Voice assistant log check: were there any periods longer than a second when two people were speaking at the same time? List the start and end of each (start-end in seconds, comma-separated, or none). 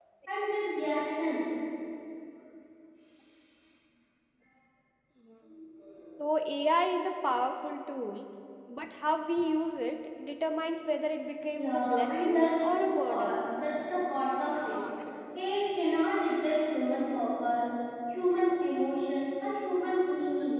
11.5-13.4